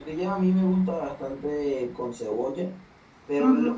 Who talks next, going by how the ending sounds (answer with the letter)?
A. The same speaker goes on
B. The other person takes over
A